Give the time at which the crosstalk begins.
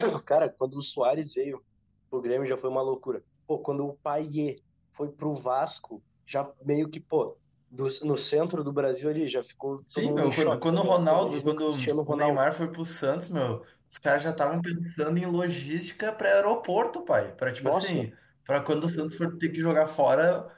9.9 s

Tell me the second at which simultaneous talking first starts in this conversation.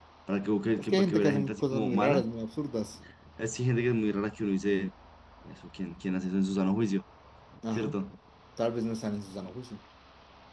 0.8 s

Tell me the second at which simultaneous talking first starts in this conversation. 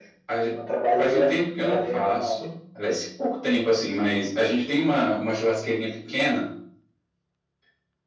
1.0 s

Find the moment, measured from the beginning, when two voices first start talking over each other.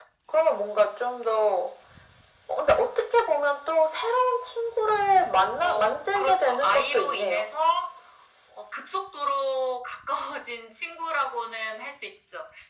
5.6 s

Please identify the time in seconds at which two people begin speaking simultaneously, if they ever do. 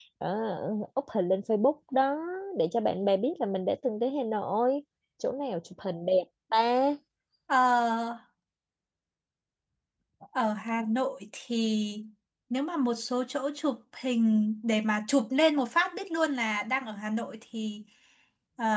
none

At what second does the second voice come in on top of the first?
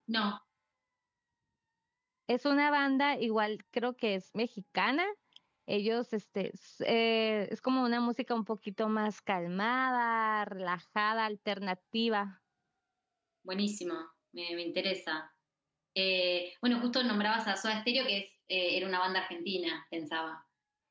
none

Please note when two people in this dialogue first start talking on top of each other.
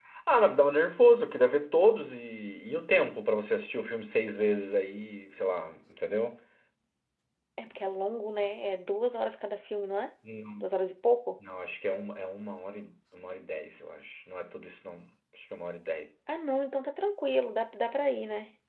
none

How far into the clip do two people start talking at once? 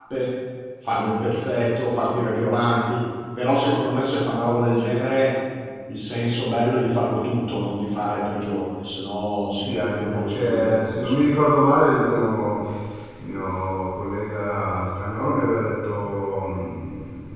9.6 s

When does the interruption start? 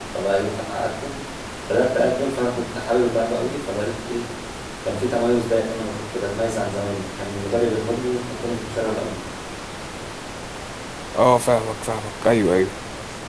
none

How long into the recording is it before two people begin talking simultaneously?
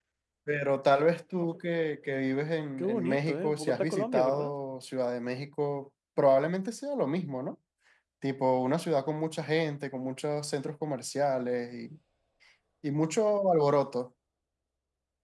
2.8 s

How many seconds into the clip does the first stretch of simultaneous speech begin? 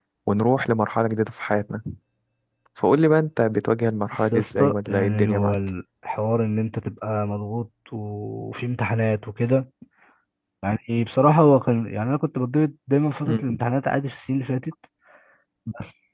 4.3 s

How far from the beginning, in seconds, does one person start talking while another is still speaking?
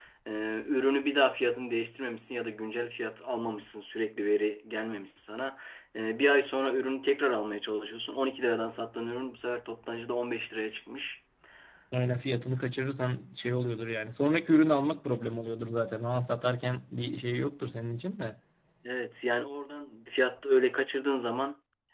none

